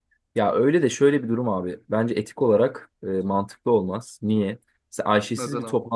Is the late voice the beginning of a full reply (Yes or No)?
No